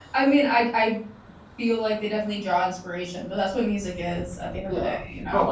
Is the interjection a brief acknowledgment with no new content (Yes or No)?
No